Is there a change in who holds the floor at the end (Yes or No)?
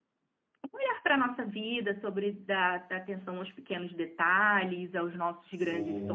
Yes